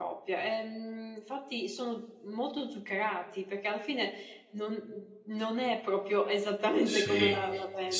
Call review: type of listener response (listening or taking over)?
taking over